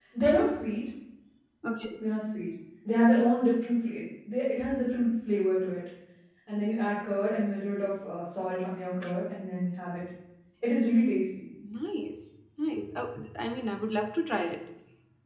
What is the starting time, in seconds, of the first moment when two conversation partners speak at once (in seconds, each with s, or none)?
none